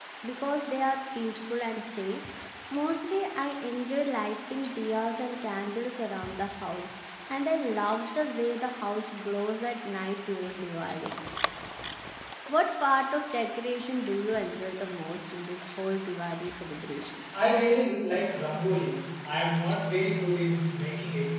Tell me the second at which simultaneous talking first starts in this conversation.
none

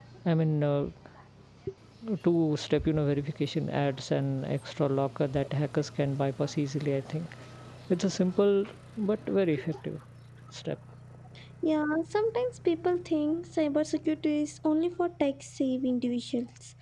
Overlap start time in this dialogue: none

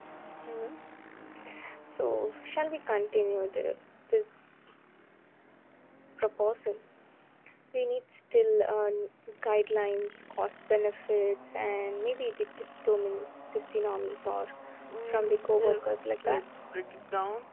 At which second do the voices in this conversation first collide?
15.1 s

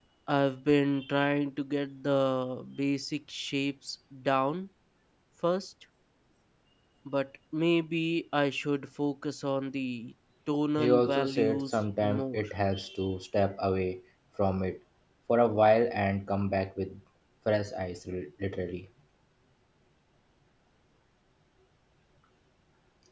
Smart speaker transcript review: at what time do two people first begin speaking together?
10.8 s

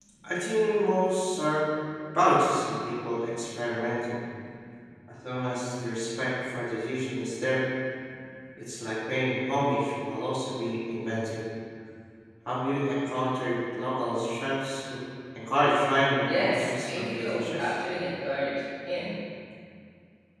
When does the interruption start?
16.2 s

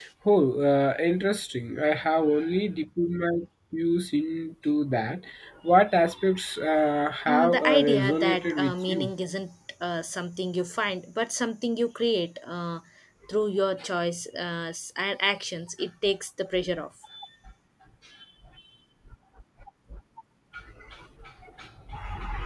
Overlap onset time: 7.3 s

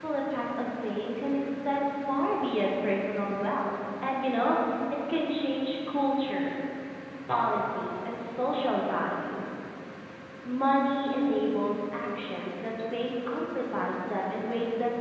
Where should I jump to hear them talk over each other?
none

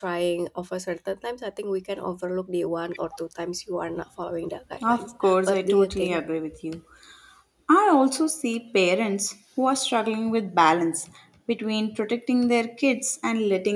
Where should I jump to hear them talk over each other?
4.8 s

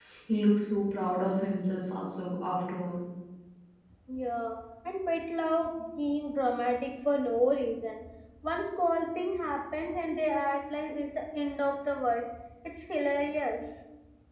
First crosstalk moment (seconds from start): none

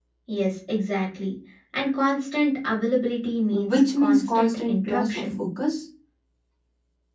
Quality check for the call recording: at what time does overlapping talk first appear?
3.5 s

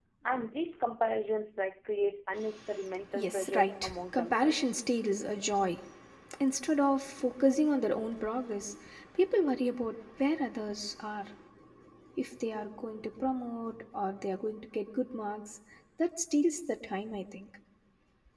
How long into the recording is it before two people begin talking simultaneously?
3.2 s

